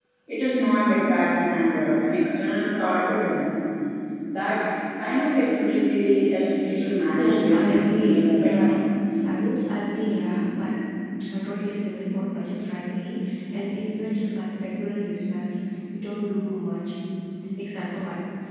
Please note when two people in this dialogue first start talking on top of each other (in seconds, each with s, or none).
7.1 s